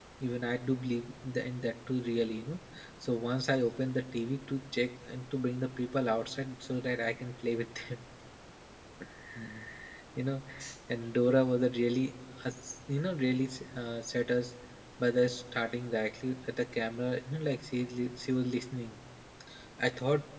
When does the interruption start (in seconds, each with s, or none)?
none